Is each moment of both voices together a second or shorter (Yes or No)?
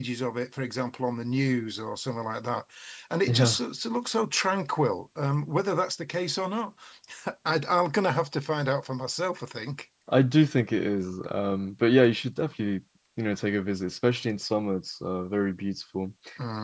Yes